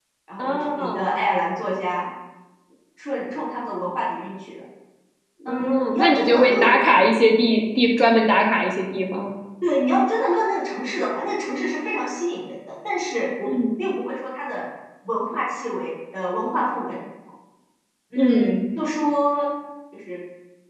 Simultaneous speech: Yes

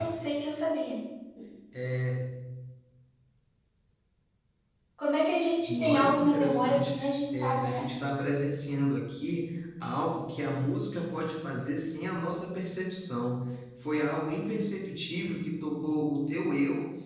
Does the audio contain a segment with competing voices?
Yes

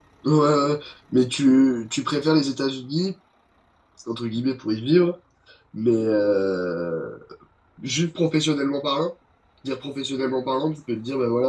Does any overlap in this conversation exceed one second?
No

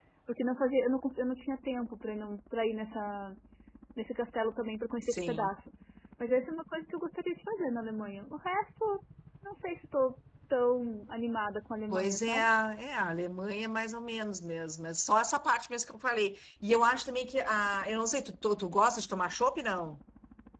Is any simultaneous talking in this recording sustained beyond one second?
No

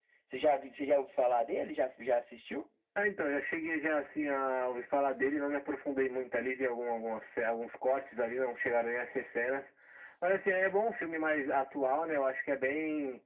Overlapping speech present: No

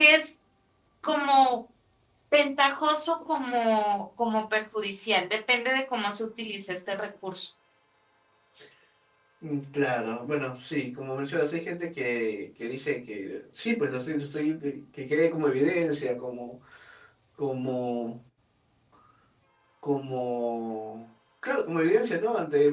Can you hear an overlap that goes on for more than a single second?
No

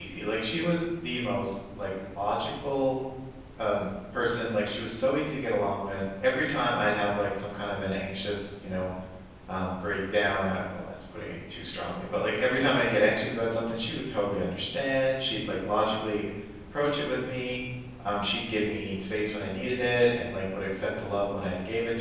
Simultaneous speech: No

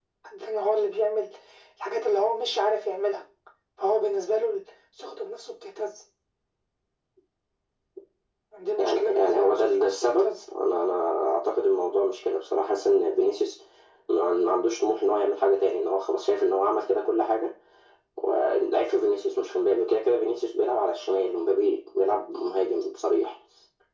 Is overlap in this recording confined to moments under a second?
No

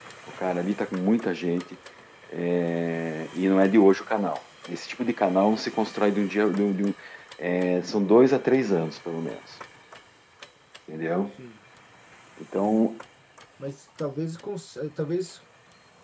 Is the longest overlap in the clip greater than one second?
No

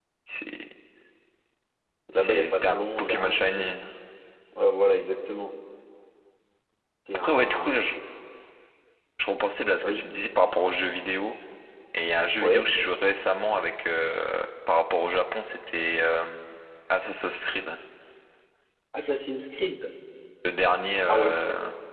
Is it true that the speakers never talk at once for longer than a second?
No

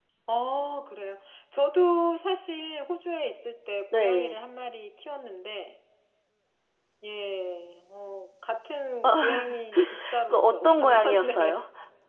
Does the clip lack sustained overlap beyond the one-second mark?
No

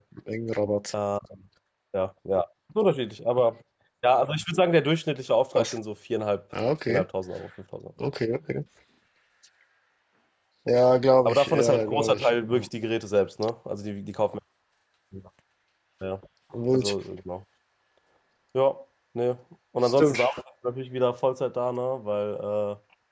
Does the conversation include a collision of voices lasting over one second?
Yes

